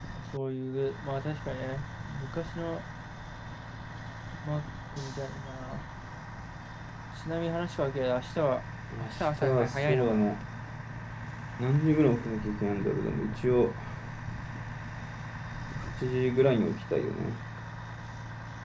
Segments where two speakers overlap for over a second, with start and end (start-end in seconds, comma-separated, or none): 9.0-10.3